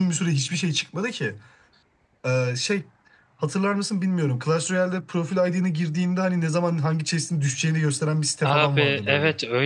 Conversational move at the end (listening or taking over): taking over